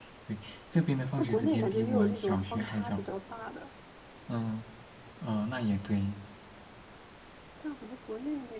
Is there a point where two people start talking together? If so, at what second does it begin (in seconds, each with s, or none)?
1.2 s